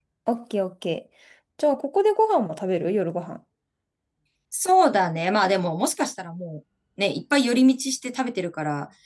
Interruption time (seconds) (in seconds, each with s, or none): none